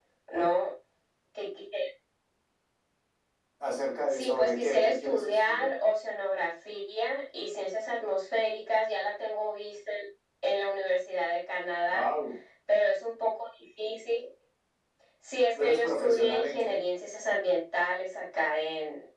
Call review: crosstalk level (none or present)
present